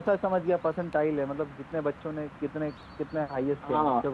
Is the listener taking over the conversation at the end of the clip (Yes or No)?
Yes